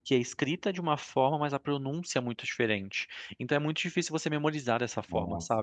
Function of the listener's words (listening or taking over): listening